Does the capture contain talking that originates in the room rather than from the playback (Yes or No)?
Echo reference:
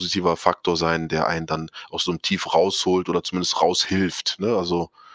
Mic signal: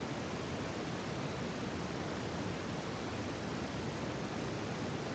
No